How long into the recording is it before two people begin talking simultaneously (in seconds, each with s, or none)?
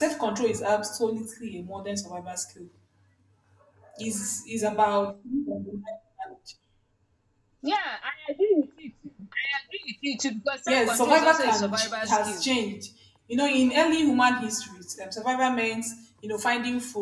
10.7 s